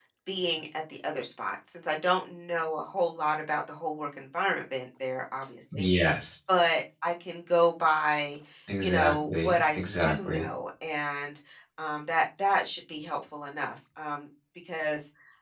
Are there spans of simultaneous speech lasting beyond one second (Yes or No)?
Yes